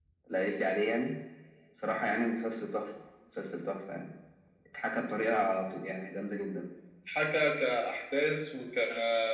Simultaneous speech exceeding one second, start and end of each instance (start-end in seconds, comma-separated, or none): none